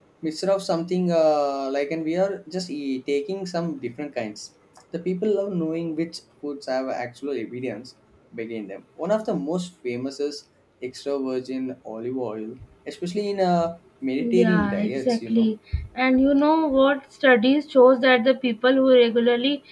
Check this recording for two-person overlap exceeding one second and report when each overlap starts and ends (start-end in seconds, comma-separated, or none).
14.2-15.5